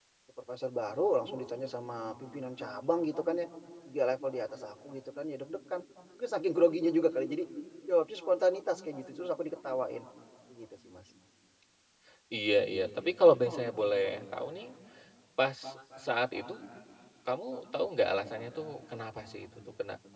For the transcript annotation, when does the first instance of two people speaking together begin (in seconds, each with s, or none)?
none